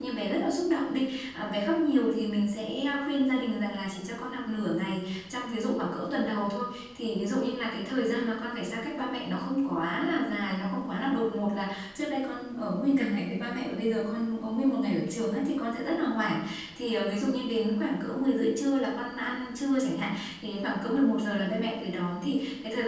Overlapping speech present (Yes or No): No